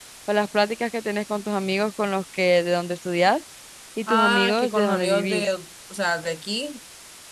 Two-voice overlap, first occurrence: 4.1 s

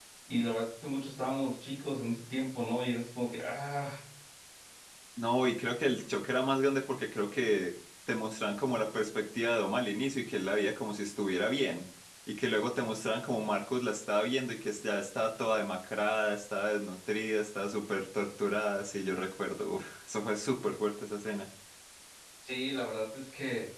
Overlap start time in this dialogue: none

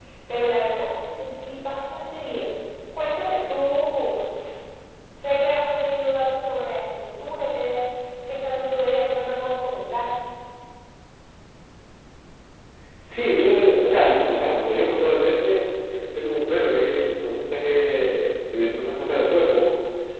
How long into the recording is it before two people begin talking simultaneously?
none

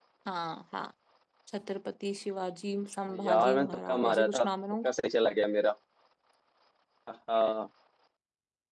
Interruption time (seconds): 3.1 s

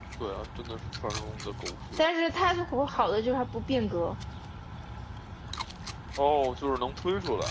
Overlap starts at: none

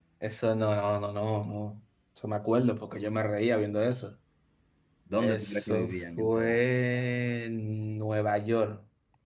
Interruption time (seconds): 5.2 s

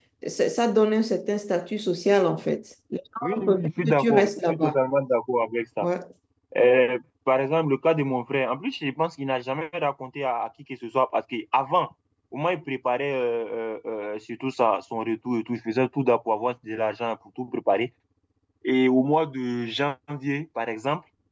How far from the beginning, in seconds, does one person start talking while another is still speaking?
3.2 s

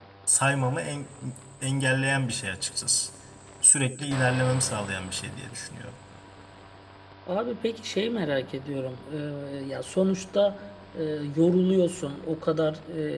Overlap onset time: none

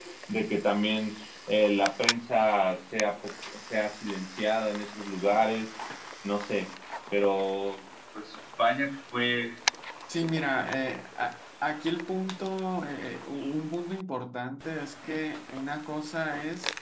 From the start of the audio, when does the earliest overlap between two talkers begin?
none

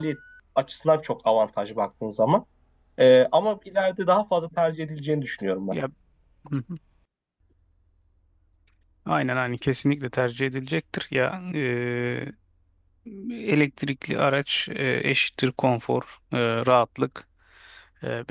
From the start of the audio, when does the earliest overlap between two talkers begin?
none

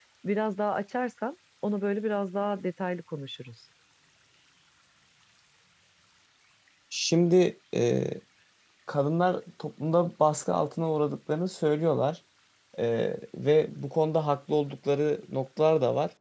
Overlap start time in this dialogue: none

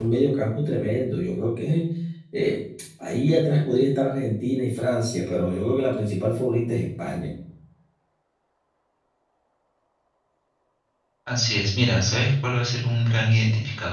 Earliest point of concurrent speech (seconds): none

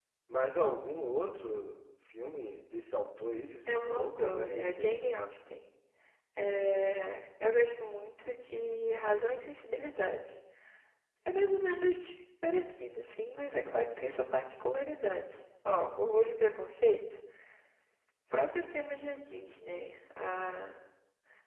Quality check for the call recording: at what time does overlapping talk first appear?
3.7 s

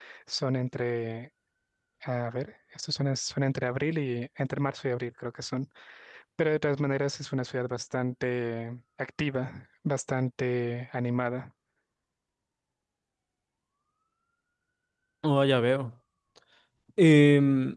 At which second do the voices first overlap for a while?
none

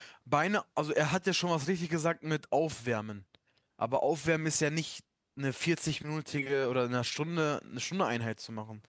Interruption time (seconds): none

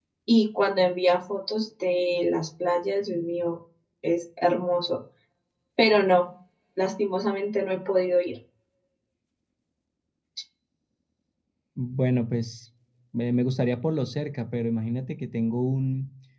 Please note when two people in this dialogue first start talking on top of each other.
none

